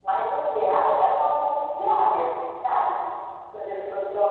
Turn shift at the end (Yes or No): No